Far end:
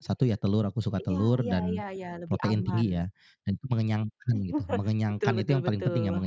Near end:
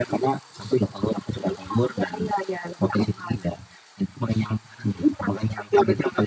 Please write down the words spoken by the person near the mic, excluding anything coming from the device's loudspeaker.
none

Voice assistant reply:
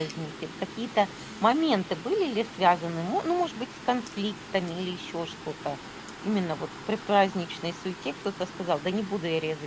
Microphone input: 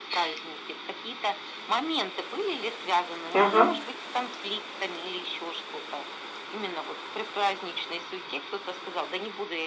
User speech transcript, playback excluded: Ага.

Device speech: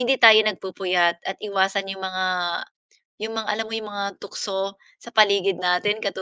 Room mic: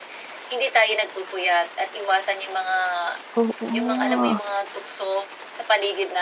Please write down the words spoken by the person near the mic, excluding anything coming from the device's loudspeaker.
Oo, nga.

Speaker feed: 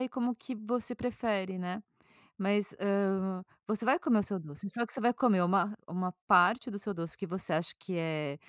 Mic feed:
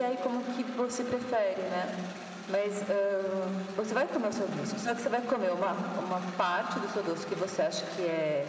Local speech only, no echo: none

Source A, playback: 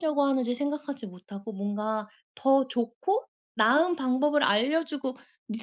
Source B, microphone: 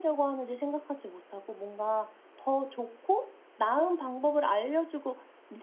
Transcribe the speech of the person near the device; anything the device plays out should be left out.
none

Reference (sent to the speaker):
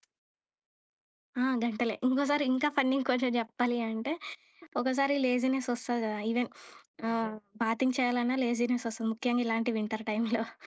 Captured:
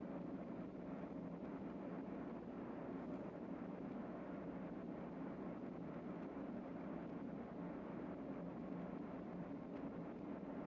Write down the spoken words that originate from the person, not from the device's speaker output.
none

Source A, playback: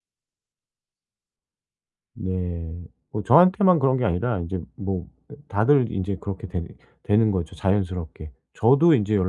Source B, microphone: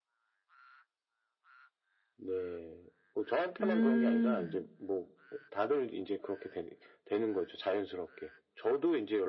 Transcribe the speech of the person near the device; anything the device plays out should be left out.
음.

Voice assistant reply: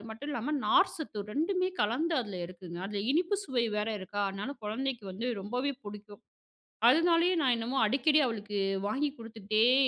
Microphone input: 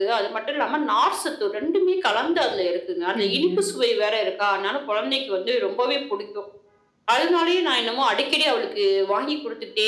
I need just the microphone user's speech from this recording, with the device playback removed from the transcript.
சரிங்க.

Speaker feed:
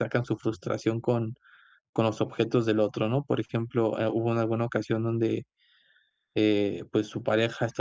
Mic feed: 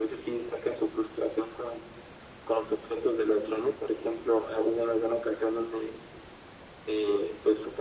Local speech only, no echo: none

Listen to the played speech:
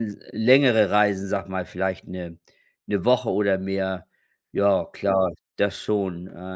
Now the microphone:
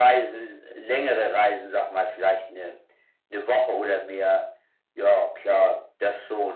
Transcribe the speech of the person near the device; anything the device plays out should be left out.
none

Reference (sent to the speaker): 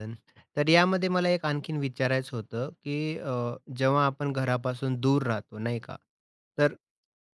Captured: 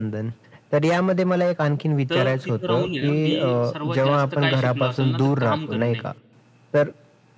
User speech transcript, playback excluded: तर तिथे राहून आहे ना, मी सर्वात जास्त काय शिकलो असेल ना तर काम करणे

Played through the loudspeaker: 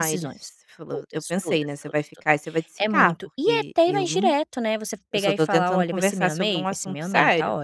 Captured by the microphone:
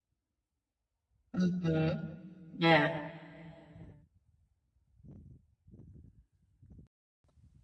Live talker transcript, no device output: Uhum, é.

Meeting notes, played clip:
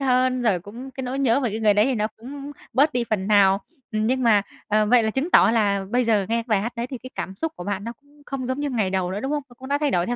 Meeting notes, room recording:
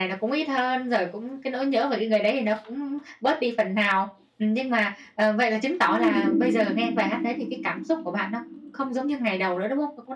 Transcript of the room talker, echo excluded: Ừm.

